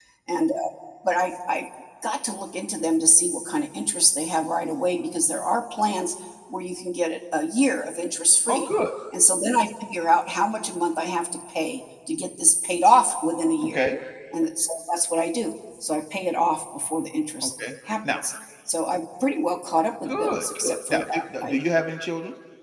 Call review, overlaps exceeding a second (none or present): present